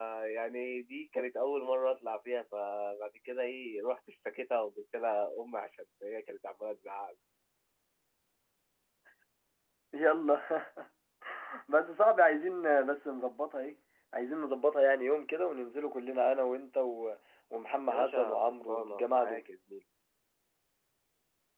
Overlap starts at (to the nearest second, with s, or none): 18 s